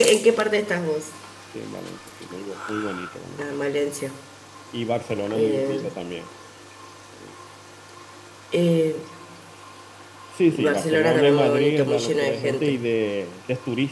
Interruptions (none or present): present